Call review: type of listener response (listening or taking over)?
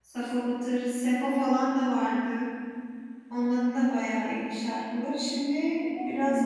listening